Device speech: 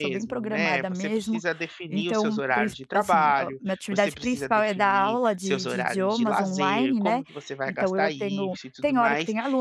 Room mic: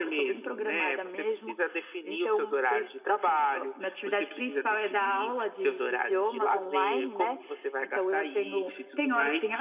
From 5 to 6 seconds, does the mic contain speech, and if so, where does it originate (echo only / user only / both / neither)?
both